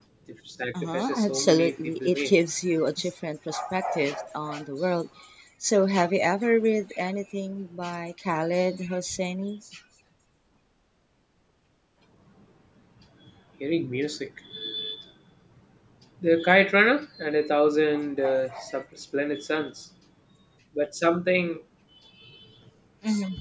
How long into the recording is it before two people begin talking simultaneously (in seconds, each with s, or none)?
0.8 s